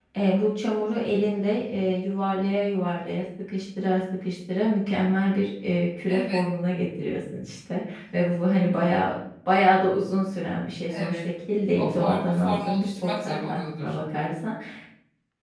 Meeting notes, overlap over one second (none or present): present